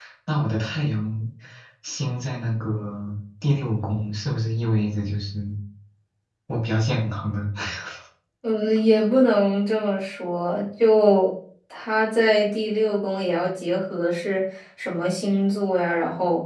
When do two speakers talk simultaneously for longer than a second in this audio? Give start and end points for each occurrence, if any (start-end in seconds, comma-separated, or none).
none